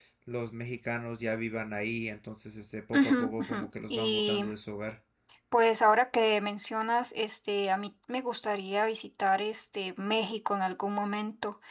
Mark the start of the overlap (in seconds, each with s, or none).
2.9 s